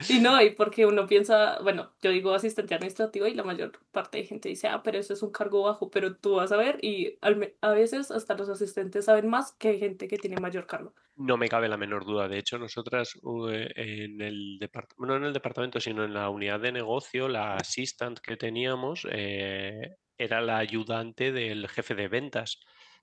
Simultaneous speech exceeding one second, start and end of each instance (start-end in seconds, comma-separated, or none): none